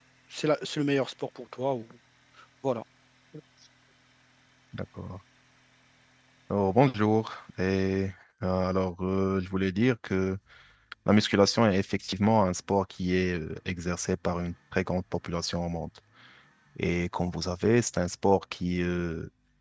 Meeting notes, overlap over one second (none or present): none